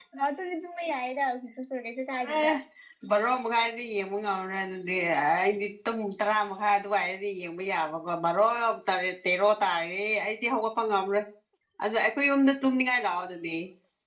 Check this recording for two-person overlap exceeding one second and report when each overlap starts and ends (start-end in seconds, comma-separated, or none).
none